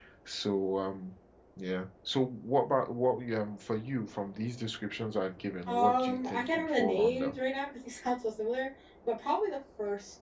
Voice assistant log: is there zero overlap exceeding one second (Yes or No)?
No